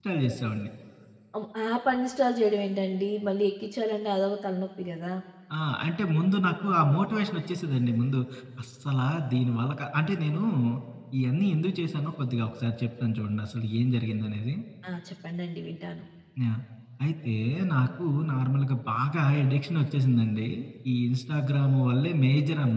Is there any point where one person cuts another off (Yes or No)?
No